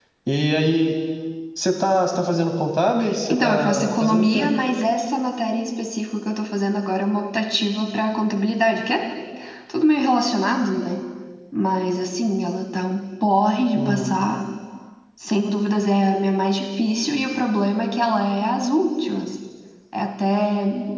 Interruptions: present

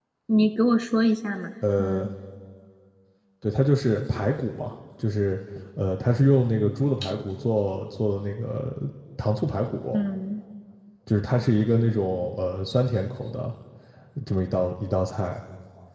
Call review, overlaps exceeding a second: none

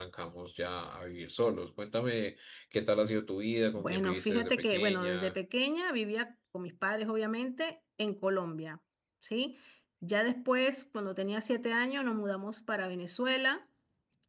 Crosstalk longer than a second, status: present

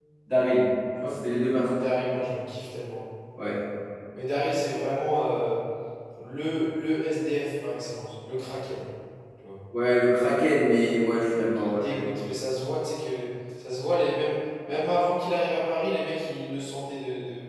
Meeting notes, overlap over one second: none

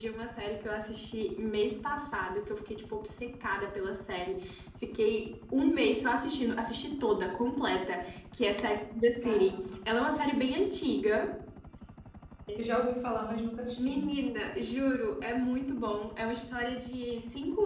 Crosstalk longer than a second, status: none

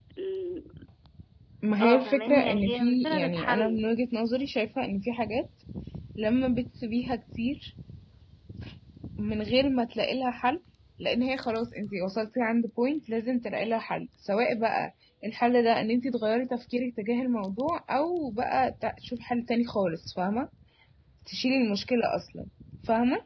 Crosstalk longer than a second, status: present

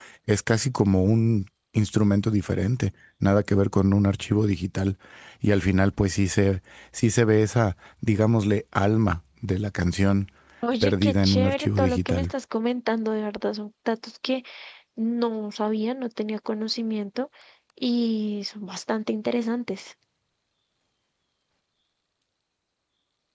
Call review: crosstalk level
present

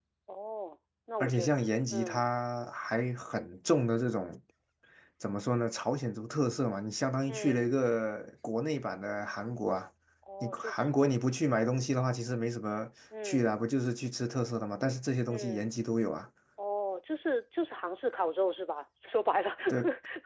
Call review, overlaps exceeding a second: none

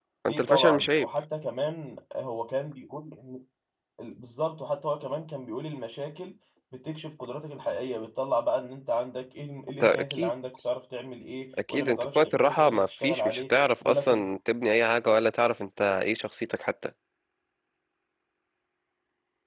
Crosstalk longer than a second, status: present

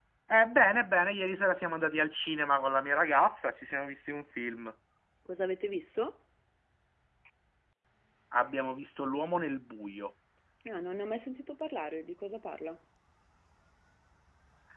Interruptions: none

